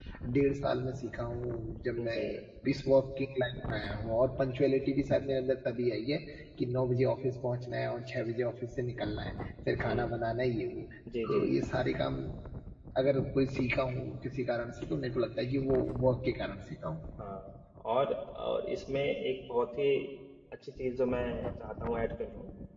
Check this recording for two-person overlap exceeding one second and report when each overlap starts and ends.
none

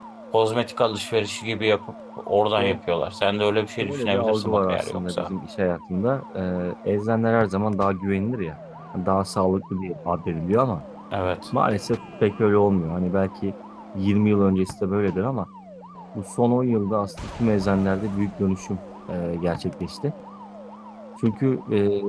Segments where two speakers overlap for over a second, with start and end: 3.8-5.3

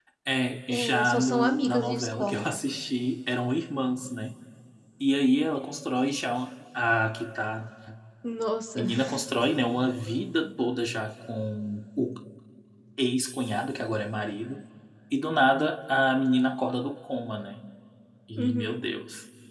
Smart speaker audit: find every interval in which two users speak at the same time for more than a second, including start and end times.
0.7-2.5

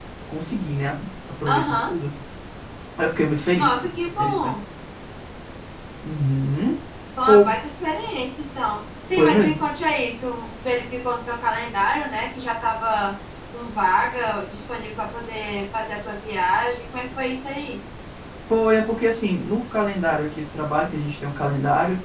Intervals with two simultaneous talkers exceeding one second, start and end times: none

